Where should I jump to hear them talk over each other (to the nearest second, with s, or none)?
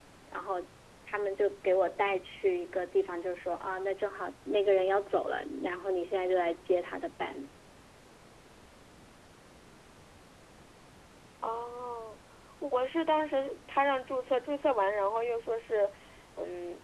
none